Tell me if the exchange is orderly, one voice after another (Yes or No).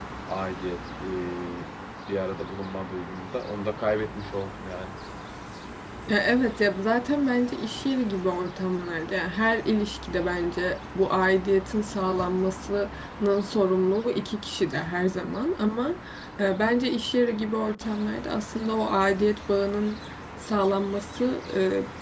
Yes